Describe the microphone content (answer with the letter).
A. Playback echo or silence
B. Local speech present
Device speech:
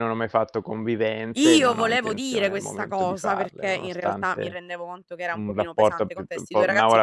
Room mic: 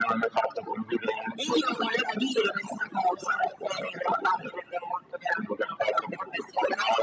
A